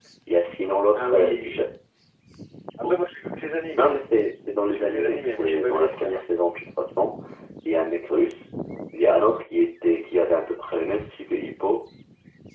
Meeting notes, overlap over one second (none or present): present